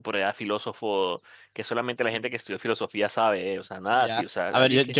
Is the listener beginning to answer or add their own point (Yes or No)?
Yes